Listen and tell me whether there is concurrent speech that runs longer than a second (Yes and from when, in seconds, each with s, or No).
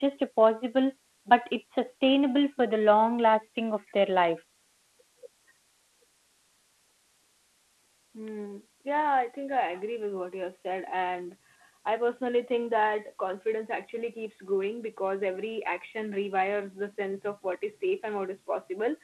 No